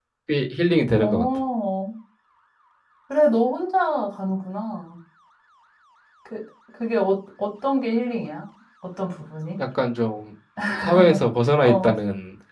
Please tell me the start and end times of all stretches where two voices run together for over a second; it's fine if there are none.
none

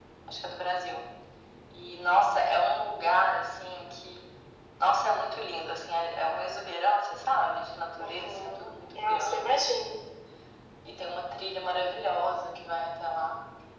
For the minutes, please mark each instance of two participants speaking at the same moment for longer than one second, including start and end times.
8.0-10.1

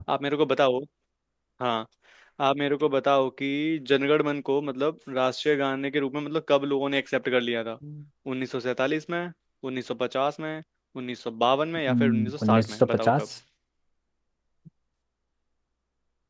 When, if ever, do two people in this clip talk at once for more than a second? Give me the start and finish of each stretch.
11.9-13.3

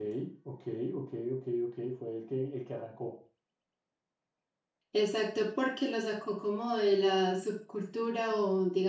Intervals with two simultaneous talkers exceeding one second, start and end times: none

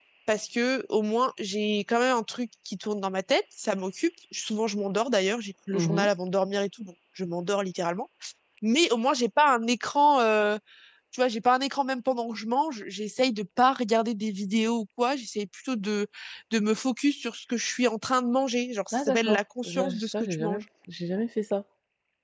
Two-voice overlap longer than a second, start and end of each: 18.9-20.6

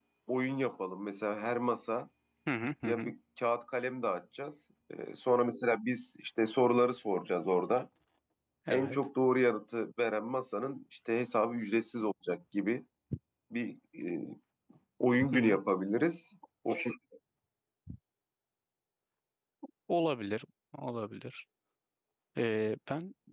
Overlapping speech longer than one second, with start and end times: none

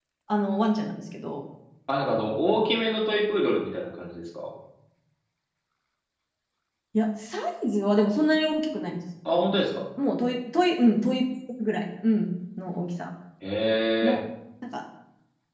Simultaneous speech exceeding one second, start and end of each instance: none

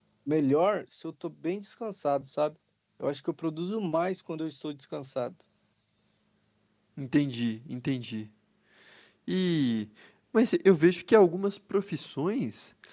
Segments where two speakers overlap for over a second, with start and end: none

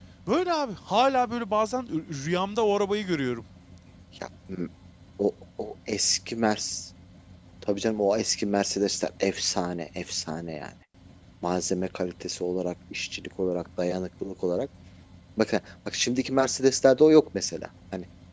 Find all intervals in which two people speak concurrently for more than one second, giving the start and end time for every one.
none

